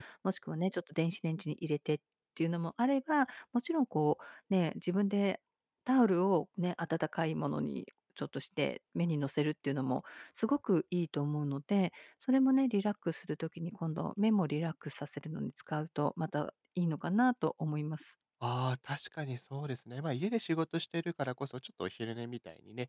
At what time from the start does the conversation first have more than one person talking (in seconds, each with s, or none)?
none